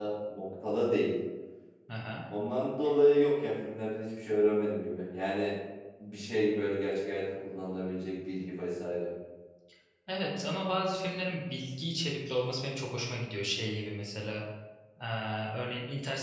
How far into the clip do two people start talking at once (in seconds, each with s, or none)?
none